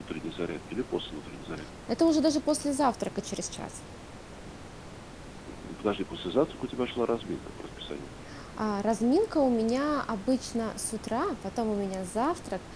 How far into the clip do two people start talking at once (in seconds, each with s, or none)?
none